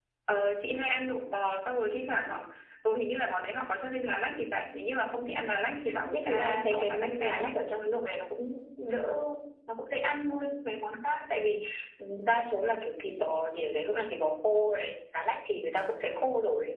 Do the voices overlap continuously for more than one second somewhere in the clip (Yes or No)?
Yes